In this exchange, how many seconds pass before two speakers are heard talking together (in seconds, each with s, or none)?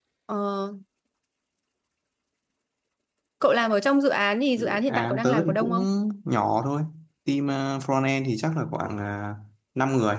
4.6 s